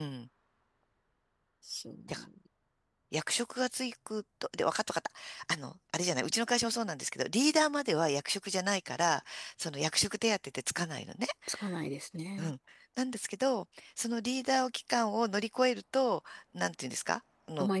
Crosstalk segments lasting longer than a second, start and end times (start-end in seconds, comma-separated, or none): none